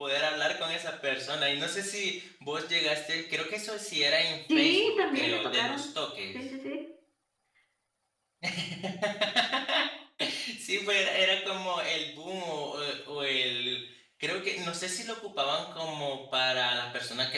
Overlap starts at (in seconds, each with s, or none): 4.5 s